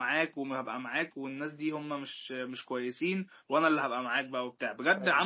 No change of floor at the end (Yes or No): Yes